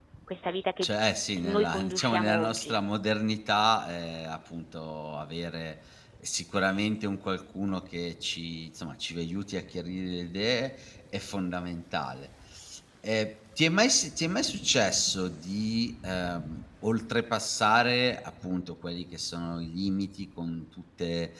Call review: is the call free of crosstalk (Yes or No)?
No